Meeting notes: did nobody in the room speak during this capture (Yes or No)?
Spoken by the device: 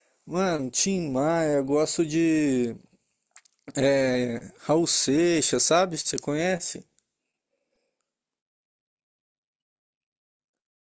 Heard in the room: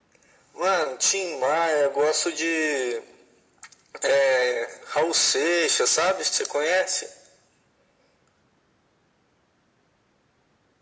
Yes